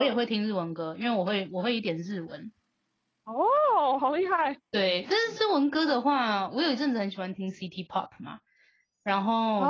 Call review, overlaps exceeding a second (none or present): none